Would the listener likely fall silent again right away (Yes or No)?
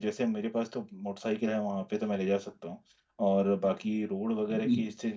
Yes